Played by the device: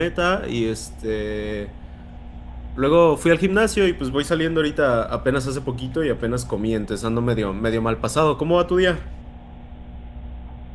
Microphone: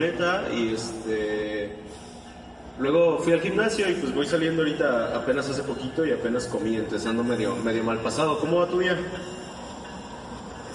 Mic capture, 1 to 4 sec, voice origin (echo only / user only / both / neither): echo only